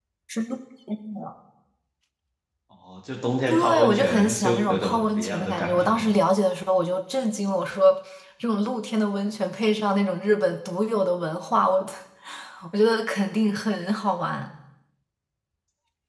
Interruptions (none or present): present